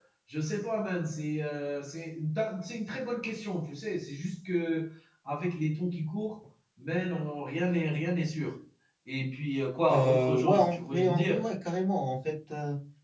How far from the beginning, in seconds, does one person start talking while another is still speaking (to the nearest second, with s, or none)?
10 s